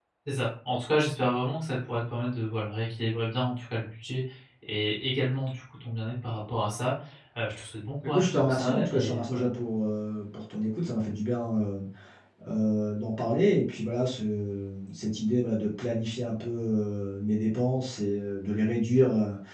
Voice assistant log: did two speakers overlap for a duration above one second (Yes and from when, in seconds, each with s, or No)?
Yes, from 8.1 s